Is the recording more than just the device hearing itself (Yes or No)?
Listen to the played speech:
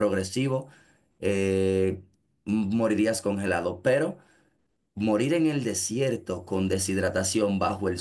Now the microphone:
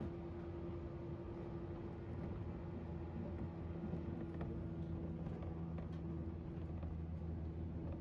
No